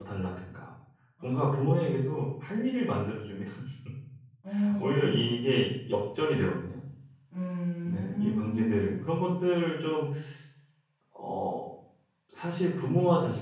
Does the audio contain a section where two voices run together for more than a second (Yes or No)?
Yes